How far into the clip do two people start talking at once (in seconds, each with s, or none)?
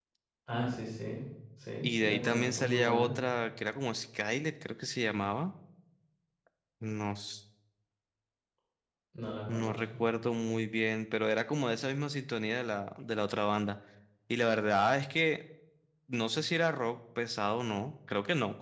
1.8 s